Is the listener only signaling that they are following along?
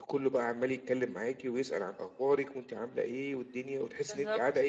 Yes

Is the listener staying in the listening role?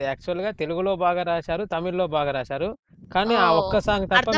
No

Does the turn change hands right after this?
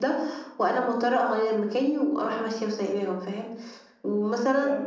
No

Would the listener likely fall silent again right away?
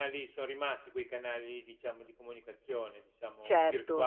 No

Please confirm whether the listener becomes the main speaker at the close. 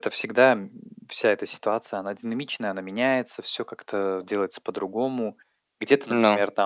No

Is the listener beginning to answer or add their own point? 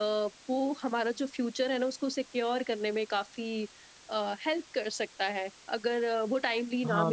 Yes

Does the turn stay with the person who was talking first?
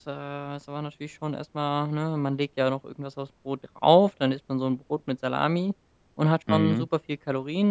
Yes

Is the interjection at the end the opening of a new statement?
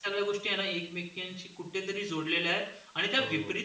No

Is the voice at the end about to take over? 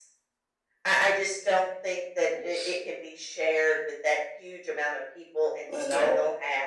No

